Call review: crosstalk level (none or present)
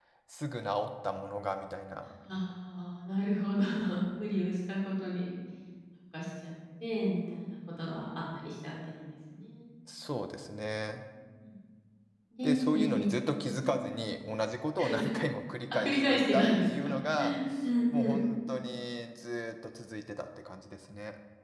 present